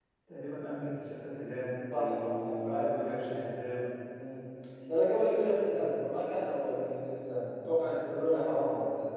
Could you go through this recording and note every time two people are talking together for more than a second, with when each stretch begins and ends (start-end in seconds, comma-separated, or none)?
2.0-3.2